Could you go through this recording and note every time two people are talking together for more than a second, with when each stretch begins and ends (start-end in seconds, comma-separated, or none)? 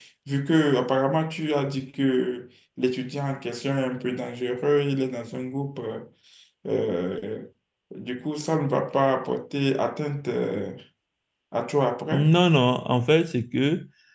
none